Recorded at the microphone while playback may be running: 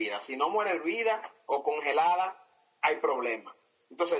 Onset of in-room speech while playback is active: none

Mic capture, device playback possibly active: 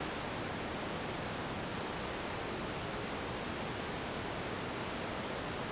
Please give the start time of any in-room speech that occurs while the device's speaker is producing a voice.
none

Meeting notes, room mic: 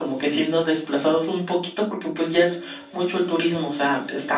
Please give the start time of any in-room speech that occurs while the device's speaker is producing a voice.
none

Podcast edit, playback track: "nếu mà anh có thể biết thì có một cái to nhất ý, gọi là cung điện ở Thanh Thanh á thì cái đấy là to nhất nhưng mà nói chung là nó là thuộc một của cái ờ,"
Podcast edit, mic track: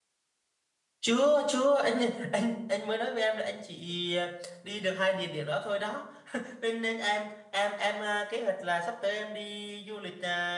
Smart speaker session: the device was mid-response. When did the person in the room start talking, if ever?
1 s

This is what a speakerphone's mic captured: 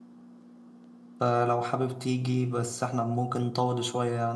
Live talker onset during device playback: 1 s

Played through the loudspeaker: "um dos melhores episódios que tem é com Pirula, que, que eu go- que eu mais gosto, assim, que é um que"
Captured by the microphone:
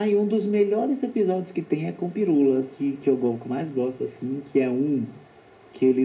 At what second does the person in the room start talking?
none

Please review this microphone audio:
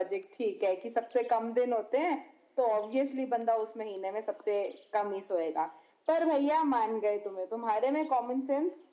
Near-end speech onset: none

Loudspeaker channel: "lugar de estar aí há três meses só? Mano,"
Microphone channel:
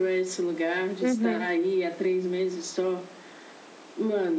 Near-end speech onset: 1 s

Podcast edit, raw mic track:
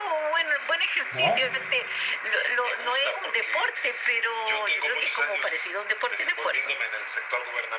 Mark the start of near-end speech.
1 s

